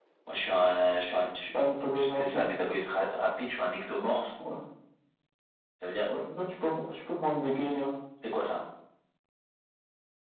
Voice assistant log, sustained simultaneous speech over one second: none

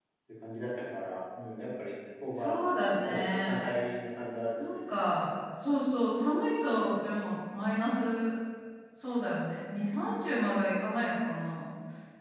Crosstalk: present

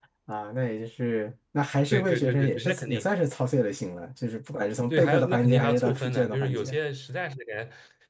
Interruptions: present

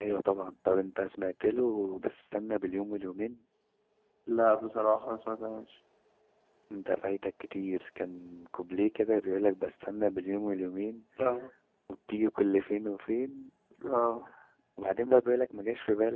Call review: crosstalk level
none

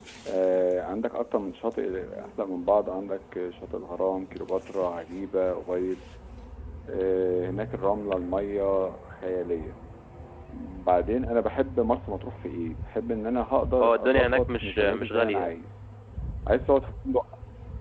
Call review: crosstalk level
present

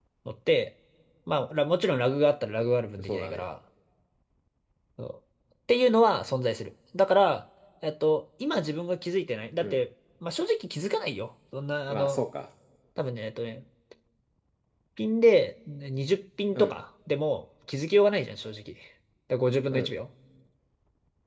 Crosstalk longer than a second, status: none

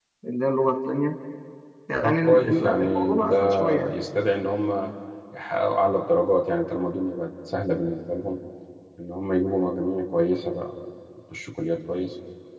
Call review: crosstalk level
present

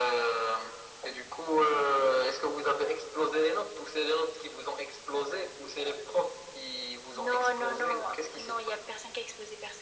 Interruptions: present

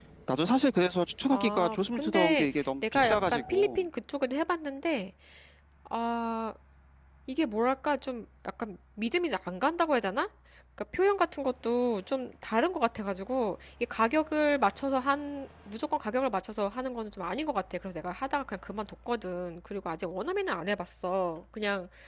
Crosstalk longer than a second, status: present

